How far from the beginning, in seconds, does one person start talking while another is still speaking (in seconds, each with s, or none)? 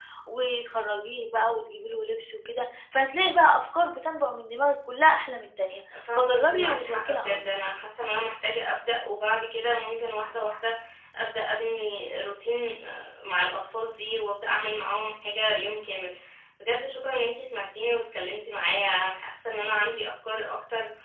5.9 s